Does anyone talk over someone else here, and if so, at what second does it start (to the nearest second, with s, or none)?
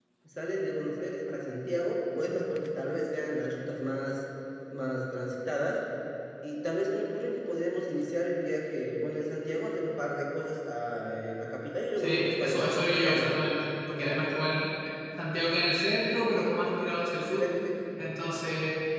12 s